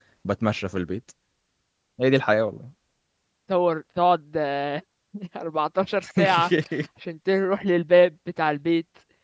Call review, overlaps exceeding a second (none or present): none